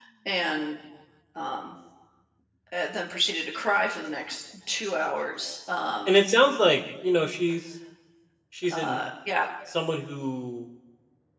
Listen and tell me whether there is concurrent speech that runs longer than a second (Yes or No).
No